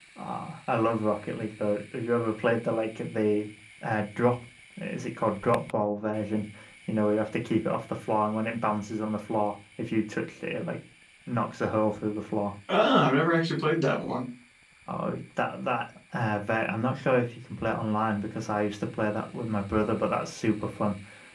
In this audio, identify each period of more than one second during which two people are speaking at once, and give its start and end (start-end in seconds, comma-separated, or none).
none